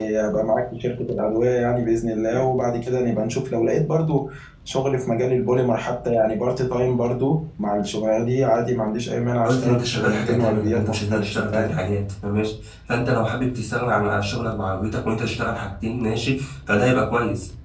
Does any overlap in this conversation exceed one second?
Yes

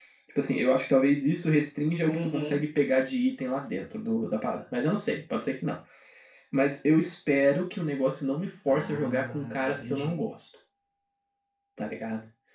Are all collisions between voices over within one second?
No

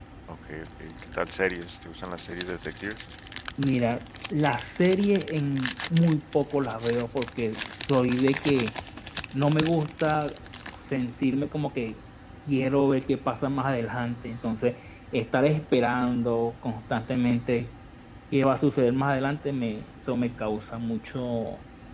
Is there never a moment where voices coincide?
Yes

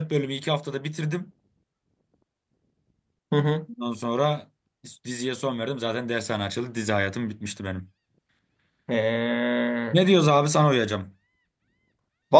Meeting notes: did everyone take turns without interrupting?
Yes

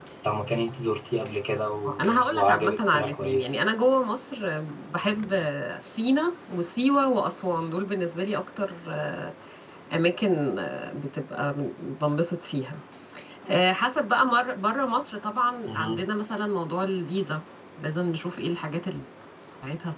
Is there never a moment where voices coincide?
No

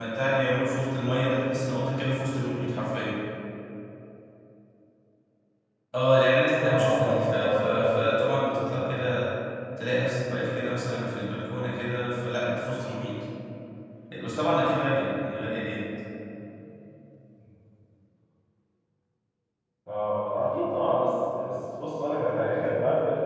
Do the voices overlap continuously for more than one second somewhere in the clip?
Yes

